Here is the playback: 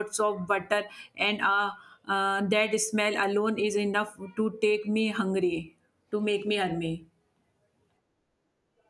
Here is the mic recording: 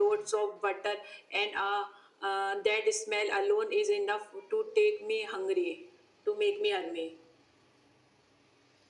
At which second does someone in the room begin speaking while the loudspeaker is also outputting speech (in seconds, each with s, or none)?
none